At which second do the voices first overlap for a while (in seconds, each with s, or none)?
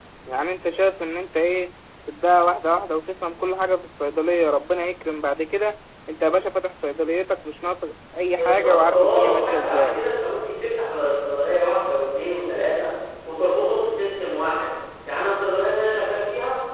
8.3 s